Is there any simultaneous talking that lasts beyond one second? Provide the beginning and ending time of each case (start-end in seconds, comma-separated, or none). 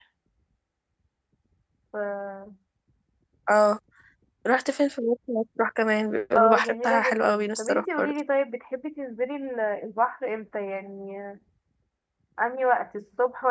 6.4-8.1